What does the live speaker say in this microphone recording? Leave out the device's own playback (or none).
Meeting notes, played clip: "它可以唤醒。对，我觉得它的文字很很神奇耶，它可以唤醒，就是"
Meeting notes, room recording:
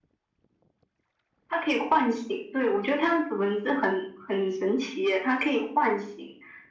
none